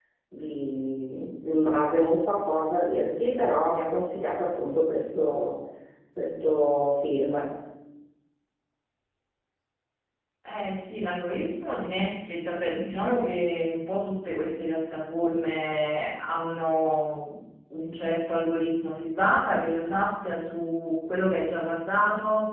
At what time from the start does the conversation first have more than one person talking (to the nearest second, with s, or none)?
none